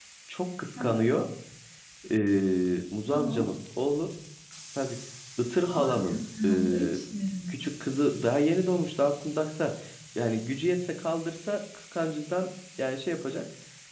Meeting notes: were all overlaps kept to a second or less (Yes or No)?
No